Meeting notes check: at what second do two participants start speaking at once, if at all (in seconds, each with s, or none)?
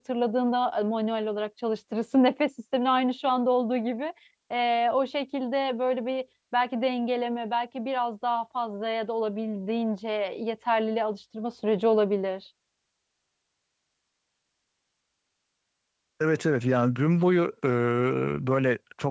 none